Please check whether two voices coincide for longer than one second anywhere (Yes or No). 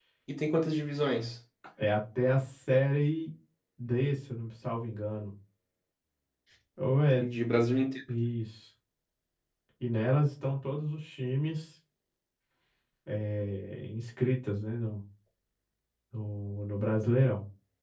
No